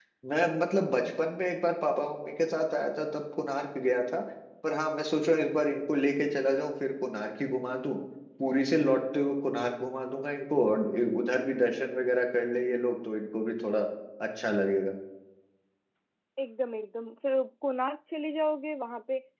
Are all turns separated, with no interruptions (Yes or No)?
Yes